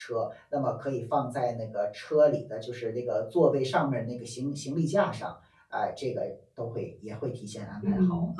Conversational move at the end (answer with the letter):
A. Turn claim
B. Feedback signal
A